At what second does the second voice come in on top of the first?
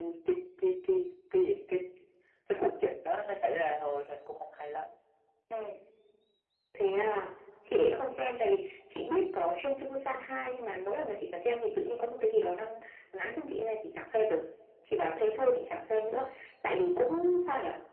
none

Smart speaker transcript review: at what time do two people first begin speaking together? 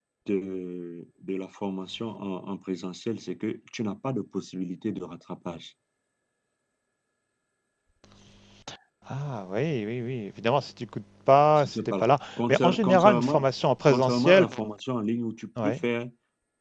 12 s

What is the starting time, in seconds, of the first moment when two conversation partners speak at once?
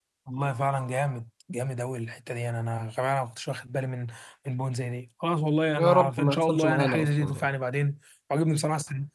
6 s

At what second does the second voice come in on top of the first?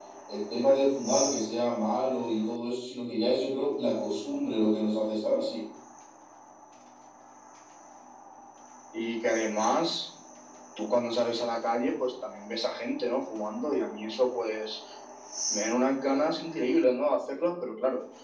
none

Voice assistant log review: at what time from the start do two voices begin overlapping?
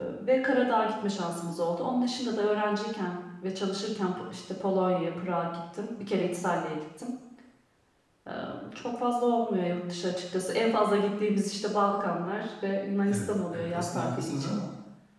13 s

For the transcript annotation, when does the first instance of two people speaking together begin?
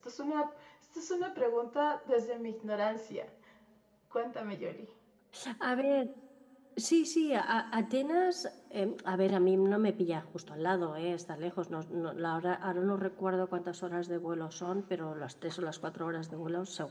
none

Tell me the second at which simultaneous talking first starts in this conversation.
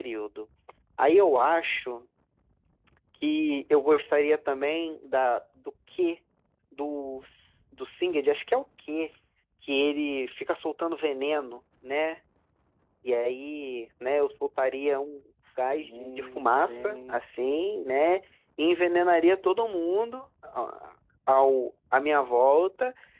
16 s

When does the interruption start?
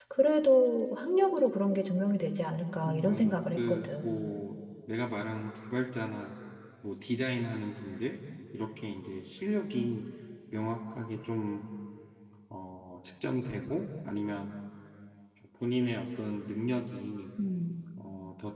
3 s

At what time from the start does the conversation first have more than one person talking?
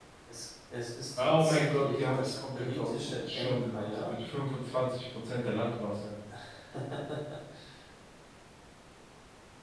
1 s

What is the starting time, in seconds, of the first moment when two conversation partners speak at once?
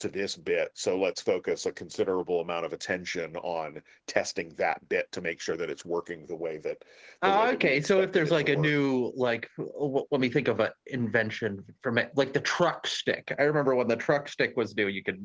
7 s

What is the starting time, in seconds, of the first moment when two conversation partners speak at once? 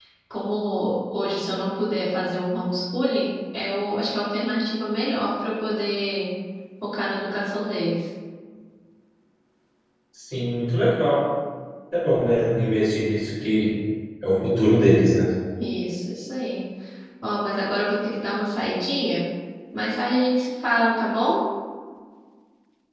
none

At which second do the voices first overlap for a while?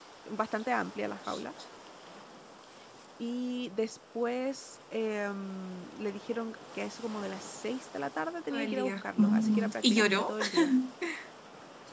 9 s

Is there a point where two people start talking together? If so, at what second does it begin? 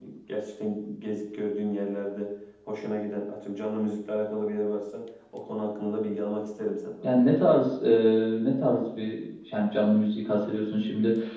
none

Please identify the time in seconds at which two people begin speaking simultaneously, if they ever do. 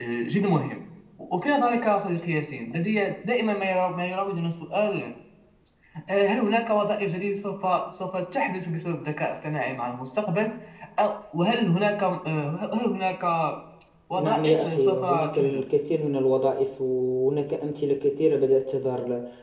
14 s

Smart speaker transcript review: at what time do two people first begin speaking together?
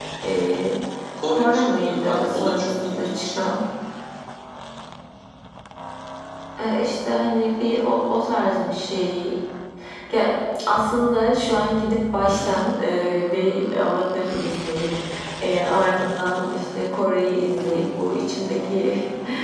1 s

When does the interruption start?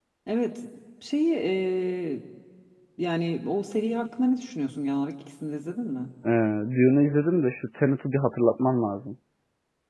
none

